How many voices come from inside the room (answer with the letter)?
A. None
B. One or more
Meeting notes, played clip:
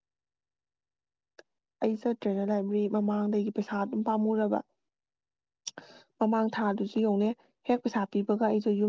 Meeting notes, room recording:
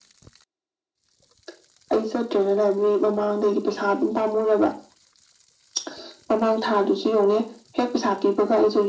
A